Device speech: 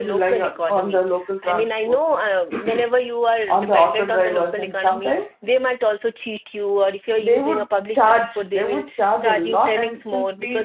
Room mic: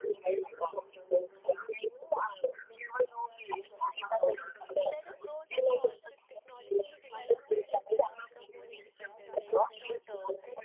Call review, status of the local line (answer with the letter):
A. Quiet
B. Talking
B